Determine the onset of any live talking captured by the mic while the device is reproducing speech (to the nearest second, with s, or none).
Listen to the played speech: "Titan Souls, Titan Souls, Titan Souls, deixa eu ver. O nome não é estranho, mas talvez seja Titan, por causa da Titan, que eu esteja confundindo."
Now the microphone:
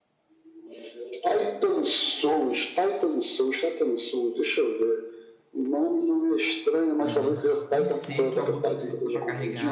7 s